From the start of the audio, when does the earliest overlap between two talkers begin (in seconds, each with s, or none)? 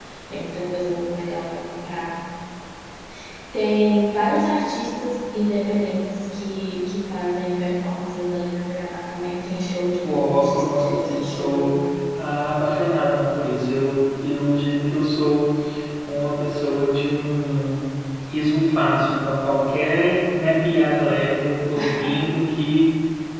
10.0 s